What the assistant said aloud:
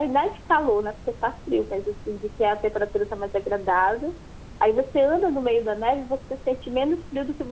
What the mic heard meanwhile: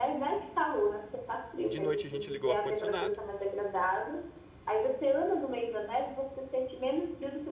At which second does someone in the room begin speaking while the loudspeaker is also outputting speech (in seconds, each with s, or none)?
1.6 s